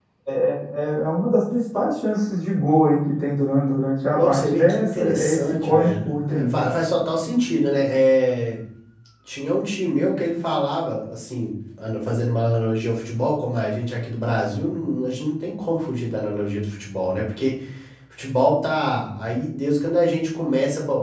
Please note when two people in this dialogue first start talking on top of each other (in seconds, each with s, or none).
4.1 s